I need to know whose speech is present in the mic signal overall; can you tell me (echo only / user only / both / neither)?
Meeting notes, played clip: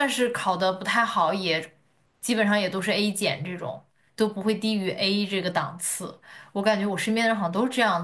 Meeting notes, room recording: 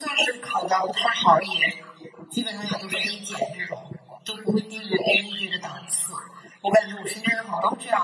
echo only